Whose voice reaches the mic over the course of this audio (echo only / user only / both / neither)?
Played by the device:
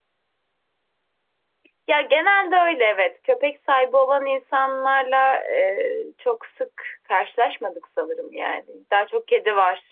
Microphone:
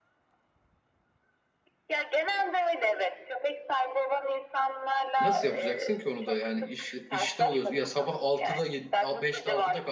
both